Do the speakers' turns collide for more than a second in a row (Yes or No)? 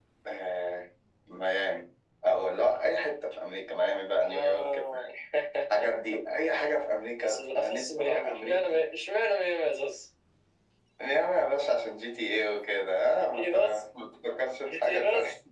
Yes